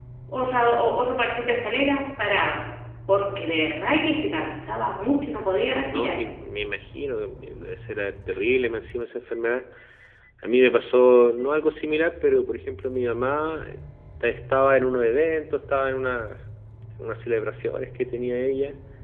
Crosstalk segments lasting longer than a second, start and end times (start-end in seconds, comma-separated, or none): none